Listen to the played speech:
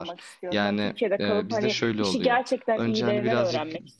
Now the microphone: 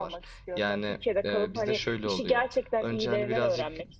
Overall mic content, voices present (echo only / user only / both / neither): echo only